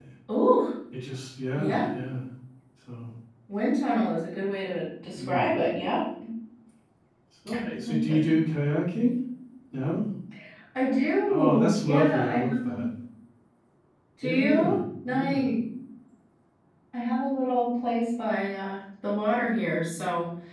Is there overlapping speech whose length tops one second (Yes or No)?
Yes